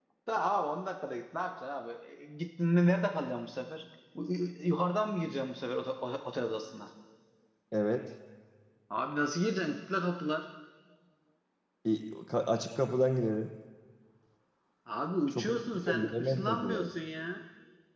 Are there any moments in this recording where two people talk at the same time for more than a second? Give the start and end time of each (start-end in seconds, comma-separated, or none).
15.3-16.9